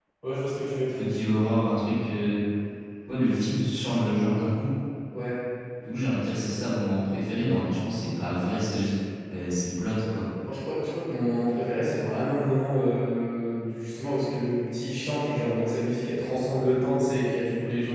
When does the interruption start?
none

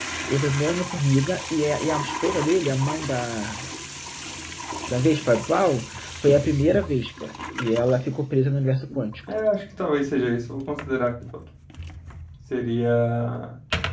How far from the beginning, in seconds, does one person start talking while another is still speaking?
none

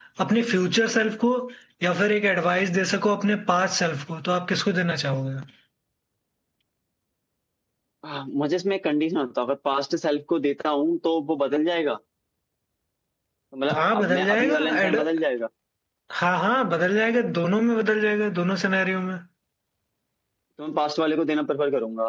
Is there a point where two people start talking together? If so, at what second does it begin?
13.7 s

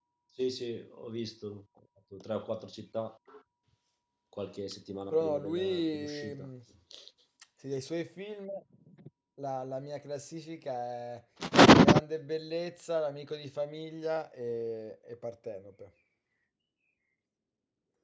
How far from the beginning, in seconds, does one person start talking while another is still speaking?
5.1 s

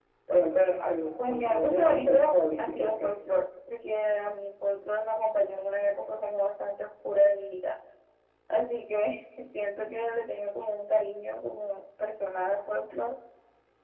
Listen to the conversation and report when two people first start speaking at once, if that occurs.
1.2 s

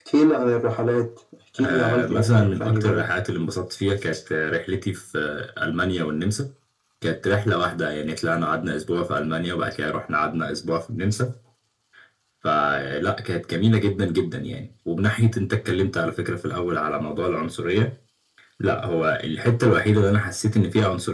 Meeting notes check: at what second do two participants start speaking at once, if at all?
1.6 s

